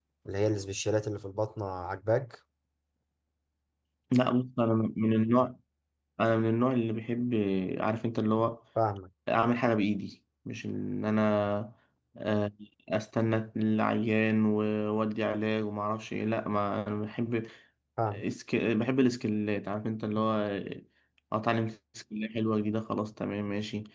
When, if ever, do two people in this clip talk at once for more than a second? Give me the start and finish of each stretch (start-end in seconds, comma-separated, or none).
none